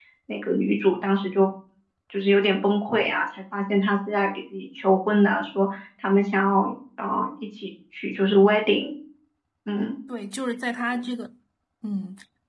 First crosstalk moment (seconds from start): none

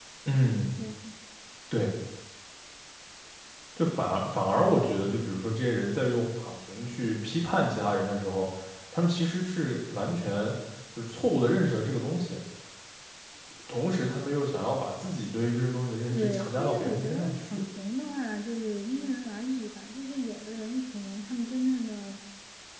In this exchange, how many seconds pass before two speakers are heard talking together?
16.1 s

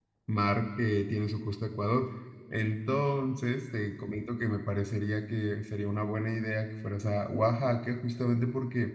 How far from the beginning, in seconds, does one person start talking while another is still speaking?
none

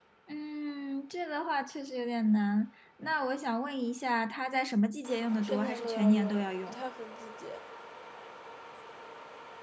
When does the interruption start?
5.4 s

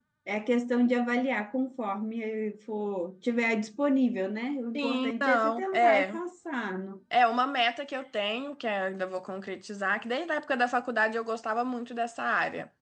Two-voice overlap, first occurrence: 4.8 s

